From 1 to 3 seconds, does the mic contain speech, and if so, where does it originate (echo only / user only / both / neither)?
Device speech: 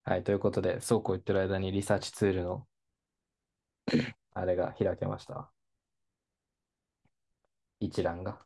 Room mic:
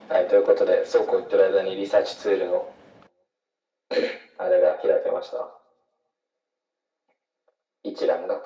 echo only